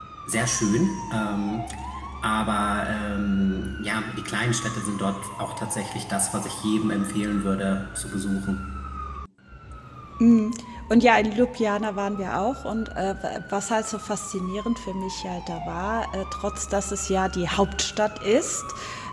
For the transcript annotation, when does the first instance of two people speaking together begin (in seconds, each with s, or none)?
none